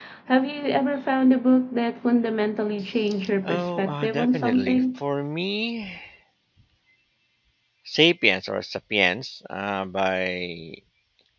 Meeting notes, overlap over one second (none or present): present